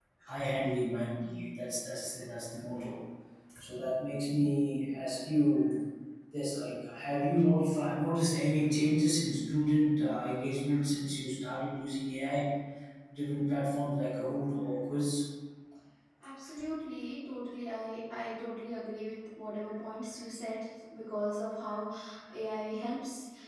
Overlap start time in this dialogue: none

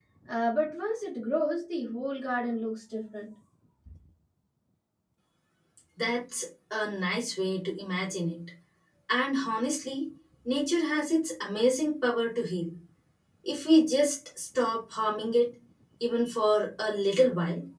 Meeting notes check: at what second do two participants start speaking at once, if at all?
none

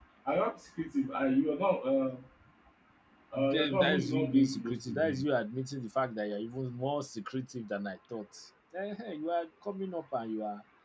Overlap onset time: 3 s

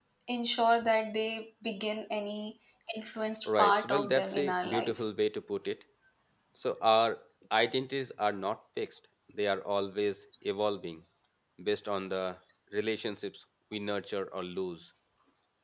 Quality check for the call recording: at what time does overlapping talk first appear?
3 s

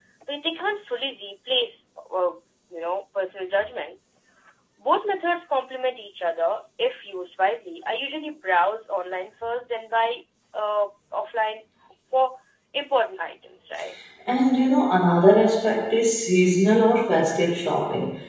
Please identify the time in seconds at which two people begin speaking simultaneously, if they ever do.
none

